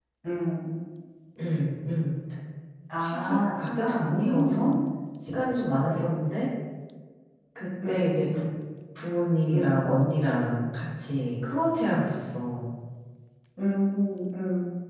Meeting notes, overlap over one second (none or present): present